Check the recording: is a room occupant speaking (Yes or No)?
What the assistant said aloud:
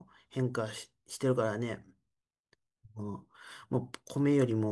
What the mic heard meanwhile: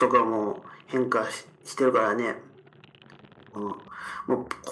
No